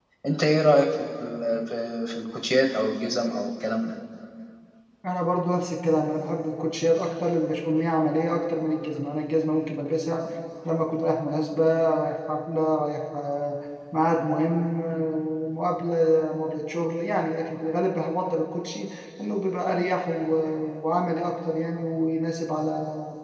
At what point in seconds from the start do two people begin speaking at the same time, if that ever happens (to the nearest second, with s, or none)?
none